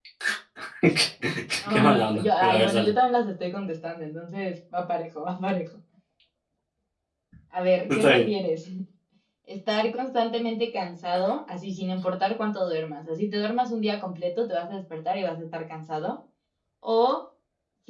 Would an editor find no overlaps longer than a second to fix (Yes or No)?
No